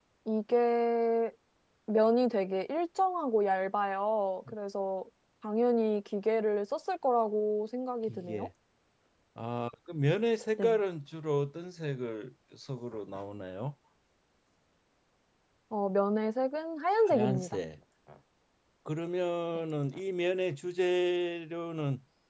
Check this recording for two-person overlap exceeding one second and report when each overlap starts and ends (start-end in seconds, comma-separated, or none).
none